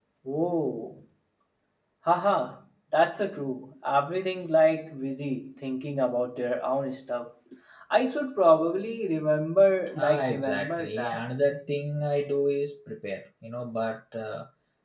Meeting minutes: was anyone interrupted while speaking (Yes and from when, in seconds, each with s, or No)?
Yes, from 10.0 s